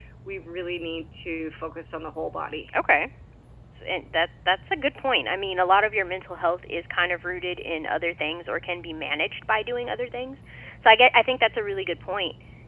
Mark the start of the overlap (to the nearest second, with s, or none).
none